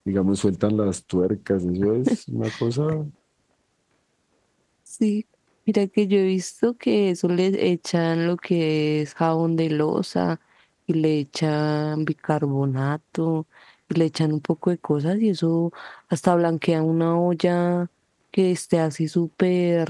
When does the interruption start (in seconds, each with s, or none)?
none